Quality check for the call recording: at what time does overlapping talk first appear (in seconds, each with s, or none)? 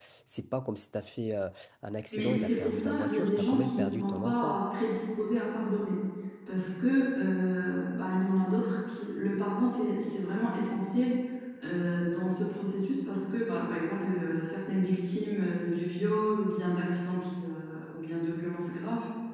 2.1 s